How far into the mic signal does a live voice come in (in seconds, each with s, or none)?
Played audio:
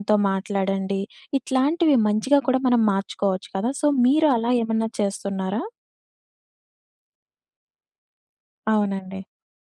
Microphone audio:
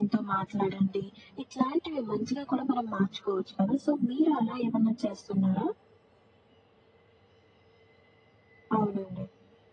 none